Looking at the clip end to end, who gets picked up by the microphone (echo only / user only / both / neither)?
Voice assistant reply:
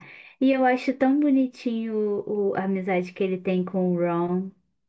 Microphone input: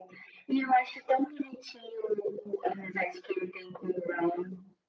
echo only